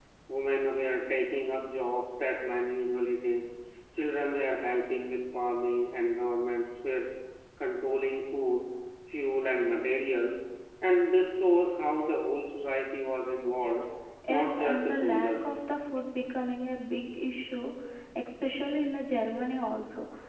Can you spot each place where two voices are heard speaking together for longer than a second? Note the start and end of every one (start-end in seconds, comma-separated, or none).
14.3-15.6